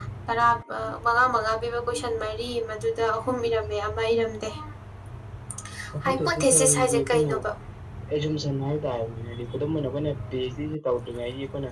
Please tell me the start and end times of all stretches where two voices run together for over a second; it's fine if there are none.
6.0-7.3

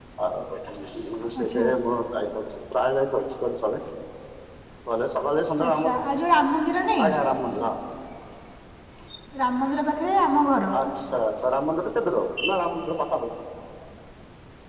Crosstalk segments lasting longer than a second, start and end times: none

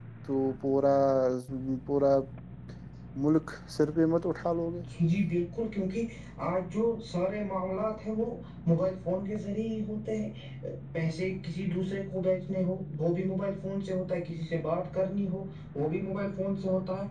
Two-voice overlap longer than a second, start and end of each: none

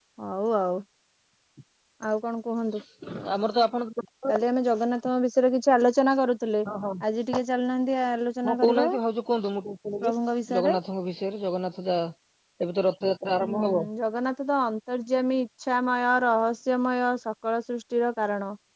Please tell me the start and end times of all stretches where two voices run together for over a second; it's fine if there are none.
none

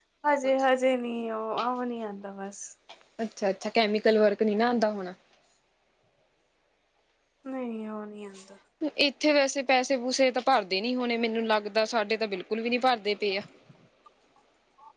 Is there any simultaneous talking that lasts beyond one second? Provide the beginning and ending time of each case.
none

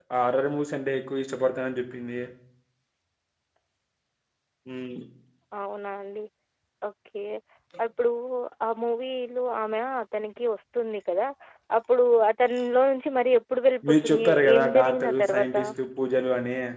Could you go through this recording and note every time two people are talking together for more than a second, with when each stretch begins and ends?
13.9-15.5

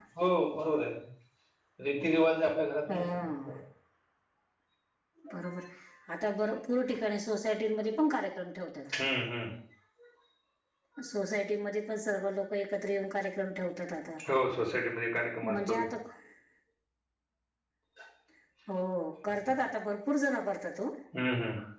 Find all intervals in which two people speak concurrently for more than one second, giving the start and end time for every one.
none

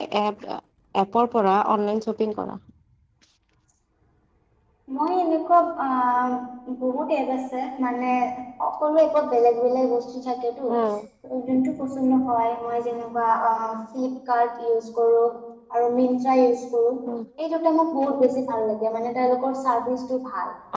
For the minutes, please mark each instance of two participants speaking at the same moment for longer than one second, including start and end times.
none

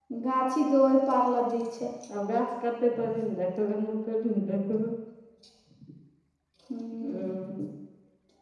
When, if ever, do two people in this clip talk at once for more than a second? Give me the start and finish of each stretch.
none

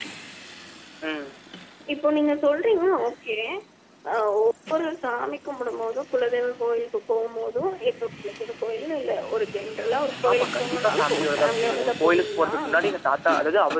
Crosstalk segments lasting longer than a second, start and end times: 10.3-12.5

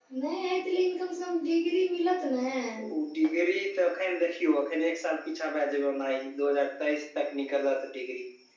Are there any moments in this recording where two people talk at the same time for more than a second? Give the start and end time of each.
none

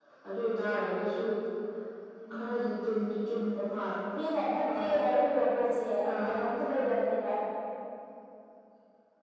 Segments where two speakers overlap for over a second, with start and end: none

